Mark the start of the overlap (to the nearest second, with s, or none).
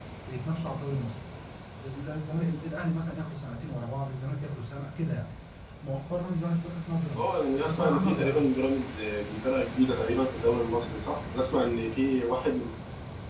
7 s